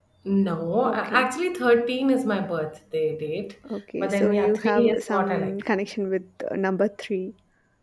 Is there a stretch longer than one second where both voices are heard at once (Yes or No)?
Yes